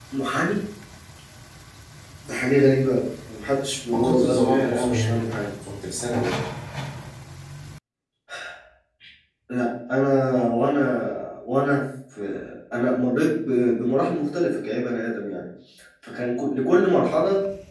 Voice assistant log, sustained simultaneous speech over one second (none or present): present